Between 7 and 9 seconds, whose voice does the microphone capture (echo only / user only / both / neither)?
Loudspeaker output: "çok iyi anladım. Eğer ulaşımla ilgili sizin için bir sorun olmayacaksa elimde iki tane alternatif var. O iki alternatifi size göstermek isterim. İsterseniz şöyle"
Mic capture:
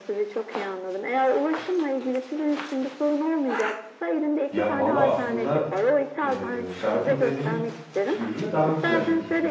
both